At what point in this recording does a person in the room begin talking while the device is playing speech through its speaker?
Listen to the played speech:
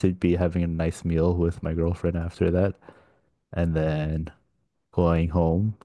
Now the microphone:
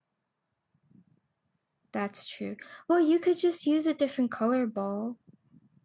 1.9 s

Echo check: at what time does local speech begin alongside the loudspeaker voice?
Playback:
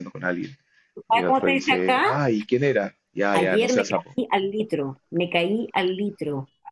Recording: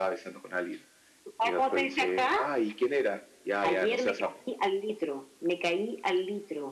none

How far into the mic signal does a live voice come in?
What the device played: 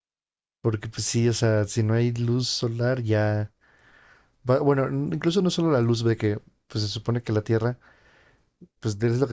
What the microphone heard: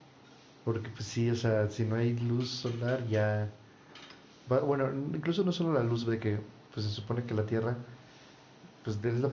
none

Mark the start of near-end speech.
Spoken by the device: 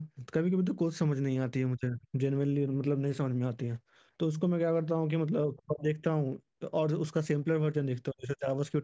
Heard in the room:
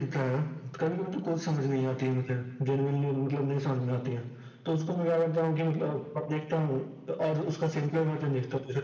none

